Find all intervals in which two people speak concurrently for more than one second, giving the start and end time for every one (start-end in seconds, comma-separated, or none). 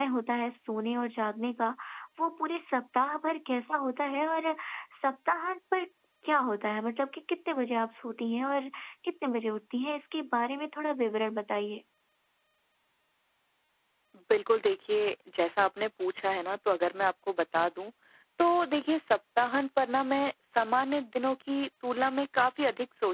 none